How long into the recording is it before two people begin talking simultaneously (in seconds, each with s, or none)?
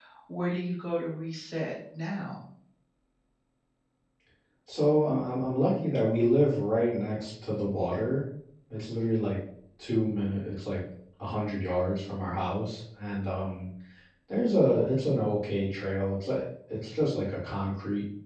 none